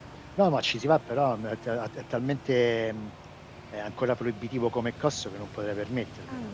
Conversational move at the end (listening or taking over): taking over